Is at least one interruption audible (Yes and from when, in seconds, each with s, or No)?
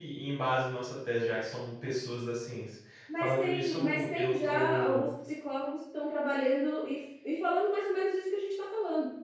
Yes, from 3.1 s